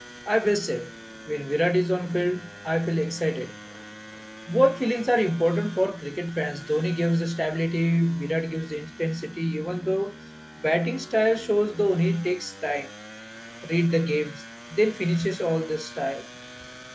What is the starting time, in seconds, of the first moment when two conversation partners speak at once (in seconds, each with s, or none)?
none